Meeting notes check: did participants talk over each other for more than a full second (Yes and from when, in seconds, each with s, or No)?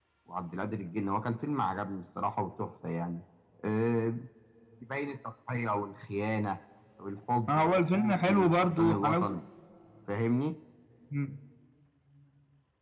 Yes, from 7.5 s